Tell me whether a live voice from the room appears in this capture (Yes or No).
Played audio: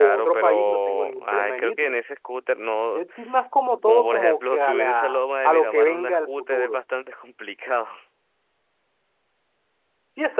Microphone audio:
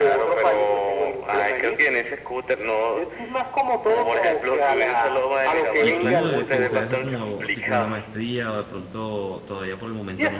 Yes